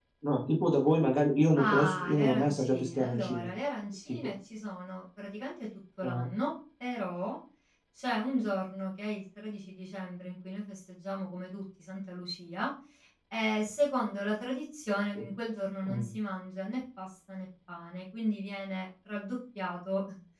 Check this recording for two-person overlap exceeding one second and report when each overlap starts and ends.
1.6-3.5

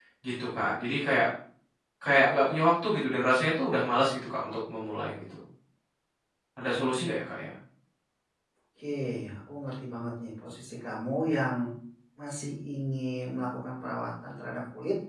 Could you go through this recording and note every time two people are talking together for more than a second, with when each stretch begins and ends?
none

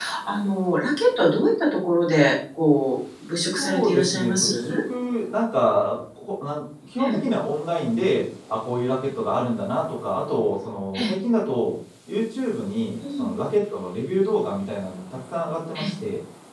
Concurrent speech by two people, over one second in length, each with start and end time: 3.4-4.8

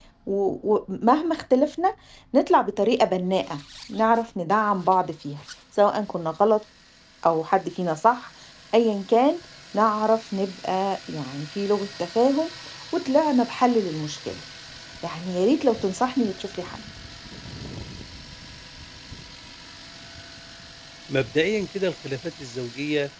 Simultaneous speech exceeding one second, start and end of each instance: none

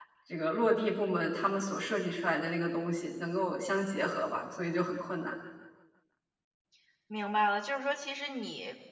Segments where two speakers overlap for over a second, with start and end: none

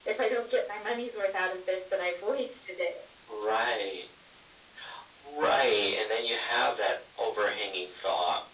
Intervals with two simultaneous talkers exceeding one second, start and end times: none

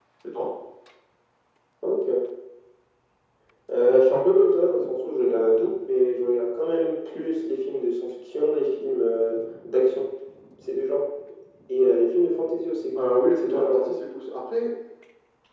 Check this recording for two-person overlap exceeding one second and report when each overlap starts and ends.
none

